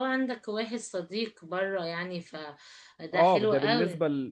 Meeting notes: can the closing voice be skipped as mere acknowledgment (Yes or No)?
No